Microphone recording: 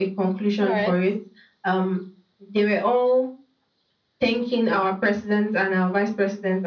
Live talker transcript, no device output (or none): All right.